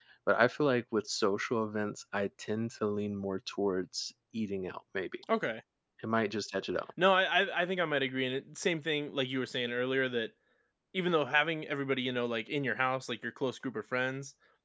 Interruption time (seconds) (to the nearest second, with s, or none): none